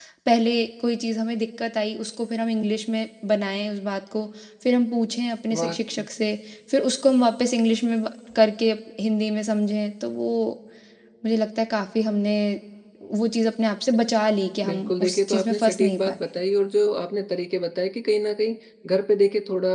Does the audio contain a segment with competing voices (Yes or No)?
Yes